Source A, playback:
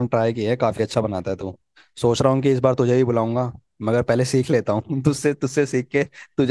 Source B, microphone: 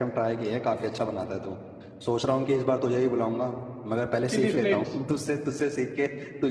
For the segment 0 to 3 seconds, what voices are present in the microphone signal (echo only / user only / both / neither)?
echo only